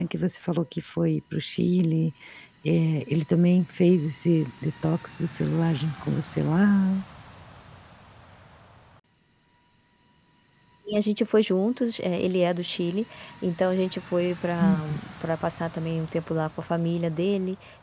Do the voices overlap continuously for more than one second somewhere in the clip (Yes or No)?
No